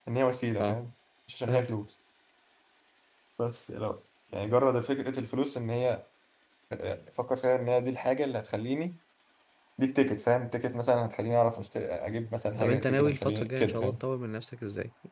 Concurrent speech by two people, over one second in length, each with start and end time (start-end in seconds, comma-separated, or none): 12.6-14.0